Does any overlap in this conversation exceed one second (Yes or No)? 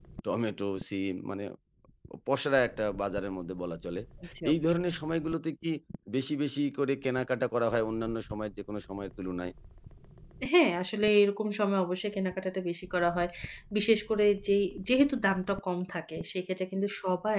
No